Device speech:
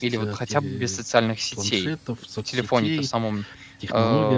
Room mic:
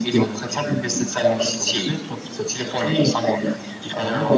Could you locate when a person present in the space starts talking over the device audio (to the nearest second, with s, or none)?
none